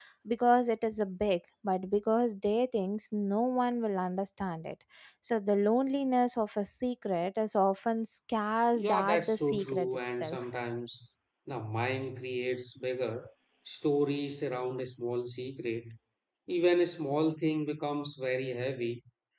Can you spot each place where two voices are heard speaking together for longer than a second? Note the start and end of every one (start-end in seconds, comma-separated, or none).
8.8-10.4